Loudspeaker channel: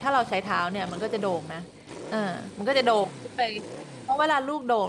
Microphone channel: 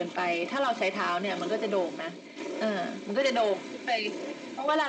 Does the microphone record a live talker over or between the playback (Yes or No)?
No